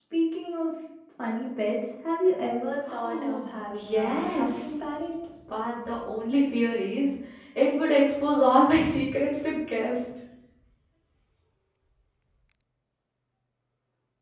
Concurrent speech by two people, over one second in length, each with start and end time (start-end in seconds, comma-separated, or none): 2.9-4.7